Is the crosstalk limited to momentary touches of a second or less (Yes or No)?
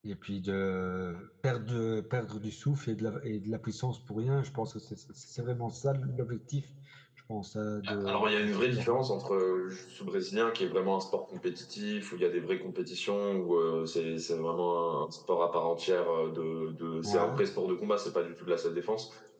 No